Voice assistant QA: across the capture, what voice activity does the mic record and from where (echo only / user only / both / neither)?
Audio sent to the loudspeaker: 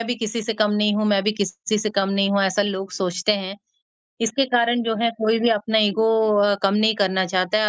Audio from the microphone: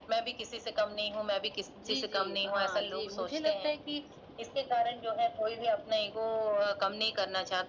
both